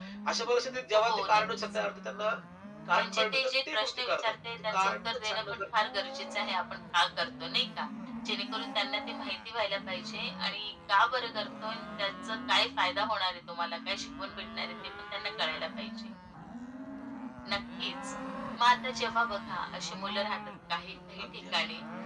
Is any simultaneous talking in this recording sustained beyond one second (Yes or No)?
Yes